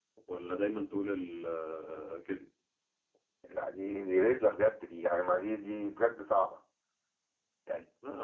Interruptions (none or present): none